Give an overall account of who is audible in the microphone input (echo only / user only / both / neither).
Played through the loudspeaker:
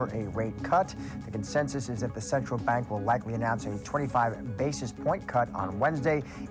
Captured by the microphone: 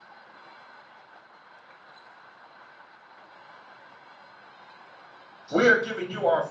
user only